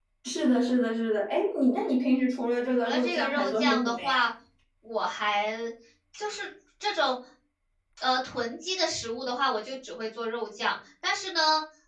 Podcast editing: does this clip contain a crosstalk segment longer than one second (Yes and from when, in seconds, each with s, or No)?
Yes, from 2.8 s